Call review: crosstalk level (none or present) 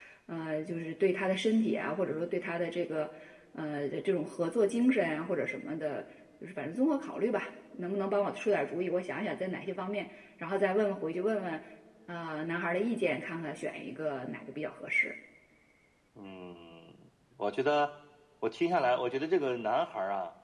none